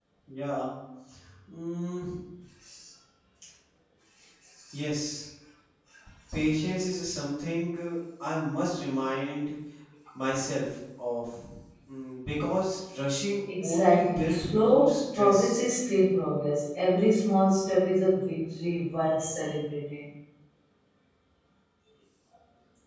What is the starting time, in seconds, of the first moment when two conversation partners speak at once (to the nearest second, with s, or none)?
13 s